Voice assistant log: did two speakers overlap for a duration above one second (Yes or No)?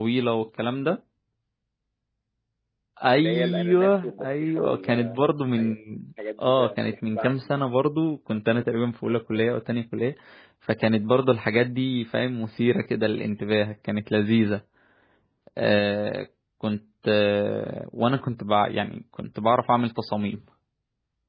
Yes